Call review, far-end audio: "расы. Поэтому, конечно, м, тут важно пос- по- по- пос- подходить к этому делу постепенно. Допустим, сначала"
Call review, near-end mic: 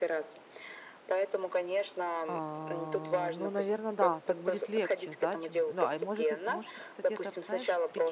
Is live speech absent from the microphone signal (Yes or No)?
No